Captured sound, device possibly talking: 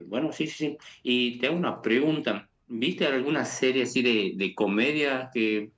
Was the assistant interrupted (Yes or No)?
No